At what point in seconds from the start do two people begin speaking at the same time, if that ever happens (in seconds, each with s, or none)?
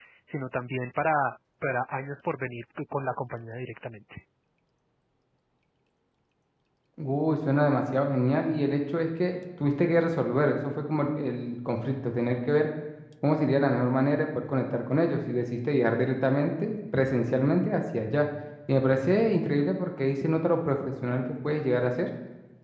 none